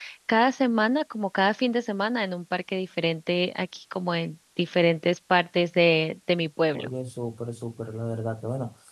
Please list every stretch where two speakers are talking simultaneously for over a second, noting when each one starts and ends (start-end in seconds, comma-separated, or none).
none